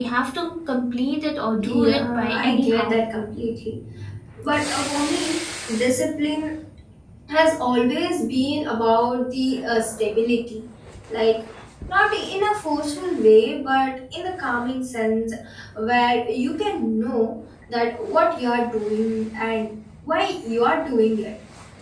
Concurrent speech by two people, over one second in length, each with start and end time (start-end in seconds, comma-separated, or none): 1.6-3.0